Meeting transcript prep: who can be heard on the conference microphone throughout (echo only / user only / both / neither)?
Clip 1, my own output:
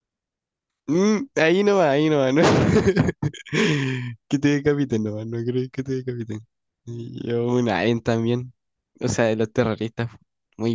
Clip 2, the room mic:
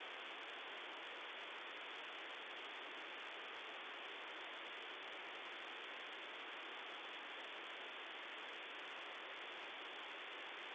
neither